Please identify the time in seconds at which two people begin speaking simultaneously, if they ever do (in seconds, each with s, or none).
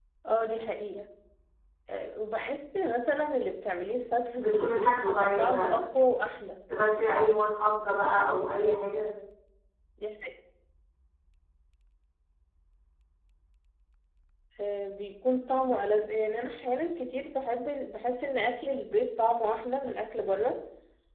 4.4 s